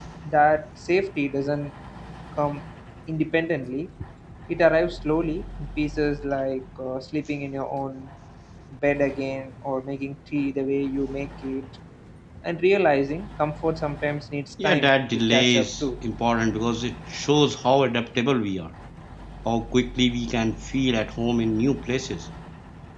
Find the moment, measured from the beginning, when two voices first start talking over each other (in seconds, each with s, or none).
14.6 s